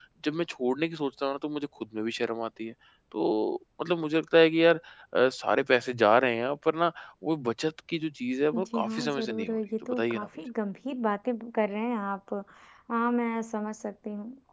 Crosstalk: present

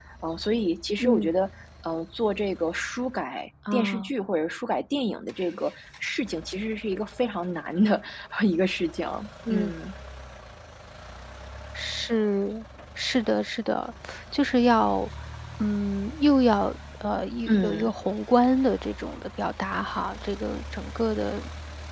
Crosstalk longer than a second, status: none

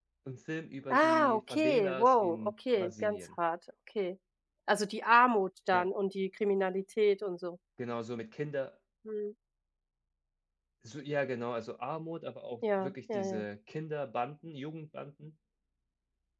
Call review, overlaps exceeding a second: present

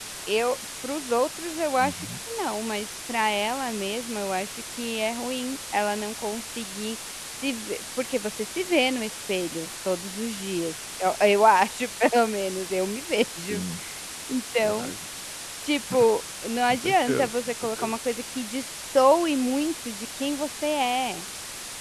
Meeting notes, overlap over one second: present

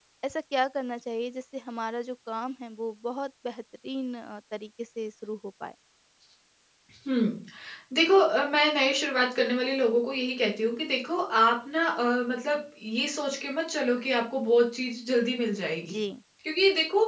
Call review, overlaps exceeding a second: none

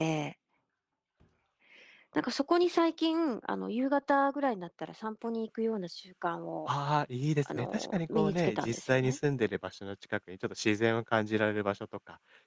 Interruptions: present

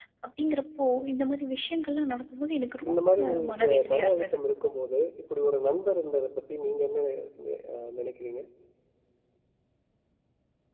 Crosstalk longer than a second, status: present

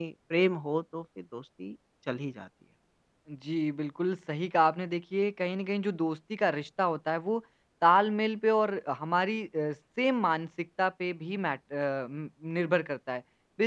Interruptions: none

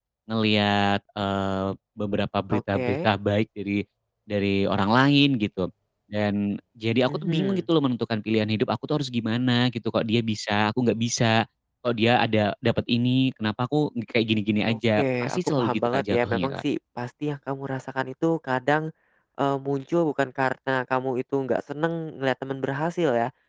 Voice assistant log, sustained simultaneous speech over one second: present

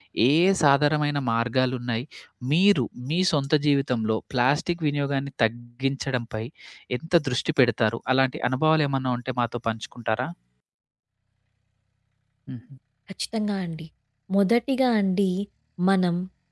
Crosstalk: none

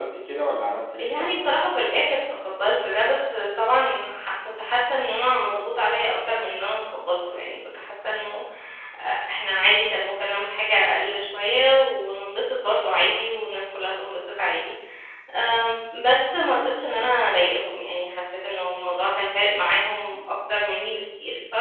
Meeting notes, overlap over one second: none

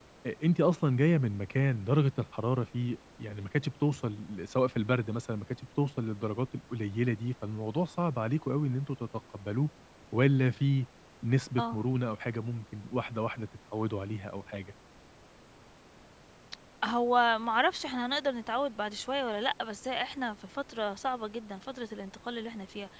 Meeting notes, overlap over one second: none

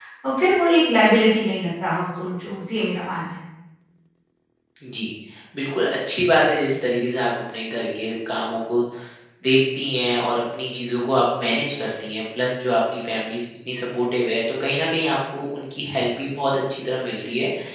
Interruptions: none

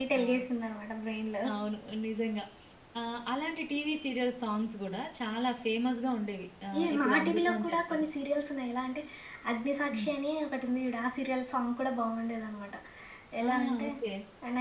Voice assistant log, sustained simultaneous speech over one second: present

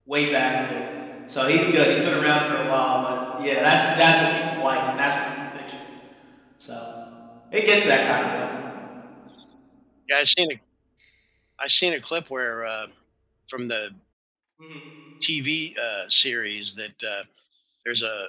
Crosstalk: none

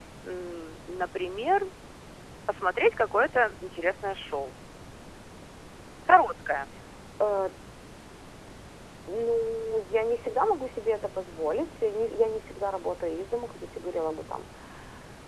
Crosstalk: none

